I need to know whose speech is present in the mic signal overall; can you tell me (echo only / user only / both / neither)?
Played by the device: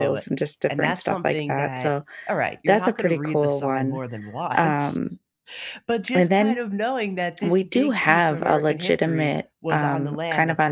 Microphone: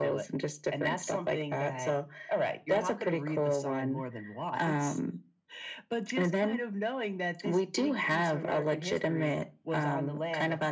echo only